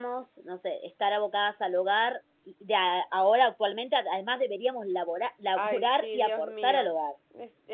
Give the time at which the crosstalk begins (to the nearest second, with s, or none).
6 s